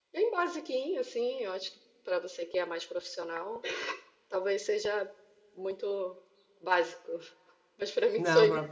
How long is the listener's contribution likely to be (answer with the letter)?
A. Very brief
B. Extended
B